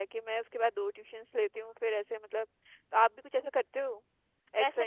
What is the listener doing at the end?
taking over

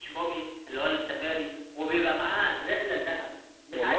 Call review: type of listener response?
listening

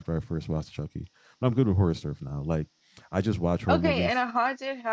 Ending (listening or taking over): taking over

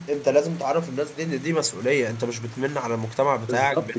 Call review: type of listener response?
taking over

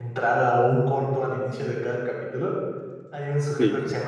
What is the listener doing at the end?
listening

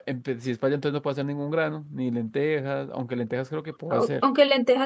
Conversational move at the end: taking over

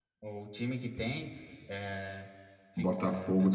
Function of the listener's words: taking over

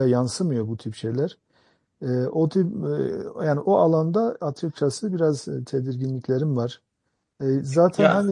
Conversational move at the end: listening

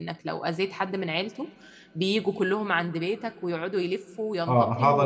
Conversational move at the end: taking over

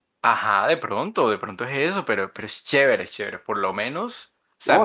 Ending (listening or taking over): taking over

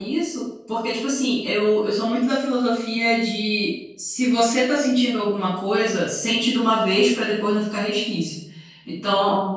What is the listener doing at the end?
listening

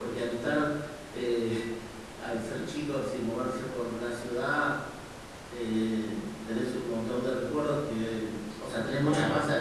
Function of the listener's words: listening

